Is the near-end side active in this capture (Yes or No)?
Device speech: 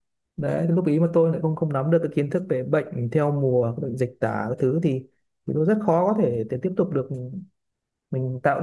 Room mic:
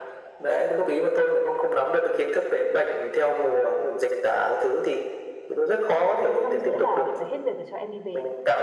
Yes